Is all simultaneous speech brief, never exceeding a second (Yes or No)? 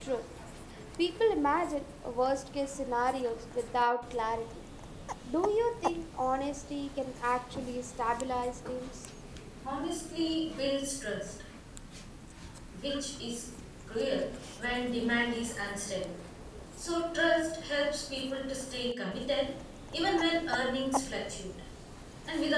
Yes